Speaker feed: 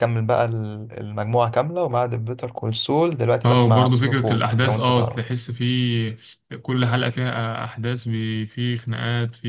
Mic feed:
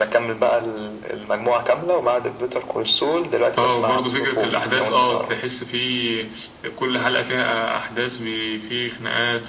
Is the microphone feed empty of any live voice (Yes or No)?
Yes